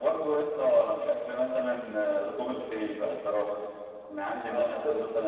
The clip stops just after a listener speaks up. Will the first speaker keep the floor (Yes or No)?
Yes